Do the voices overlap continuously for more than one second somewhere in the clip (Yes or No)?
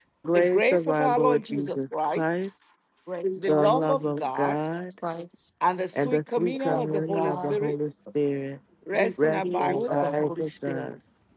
Yes